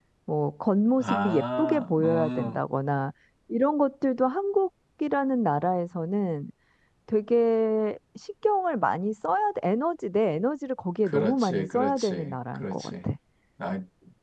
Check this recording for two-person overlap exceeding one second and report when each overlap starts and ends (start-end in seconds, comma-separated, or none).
1.0-2.6, 11.0-12.9